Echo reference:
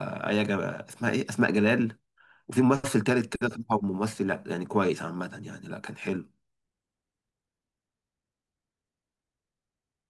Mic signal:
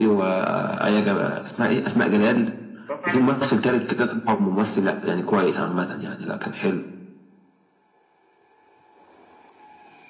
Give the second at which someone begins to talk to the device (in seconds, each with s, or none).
2.9 s